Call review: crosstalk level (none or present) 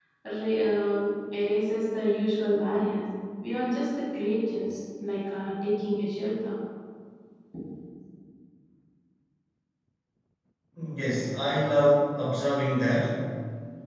none